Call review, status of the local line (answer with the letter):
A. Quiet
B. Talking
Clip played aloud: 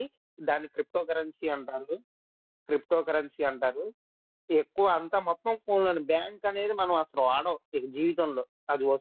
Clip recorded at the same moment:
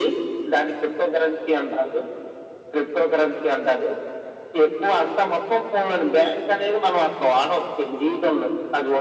A